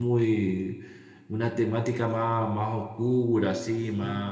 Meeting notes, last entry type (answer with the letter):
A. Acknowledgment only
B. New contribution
A